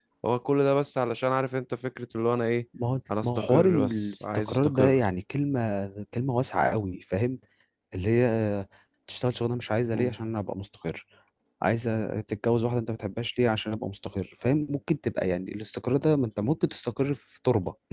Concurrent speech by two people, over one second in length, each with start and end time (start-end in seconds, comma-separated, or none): 3.2-5.0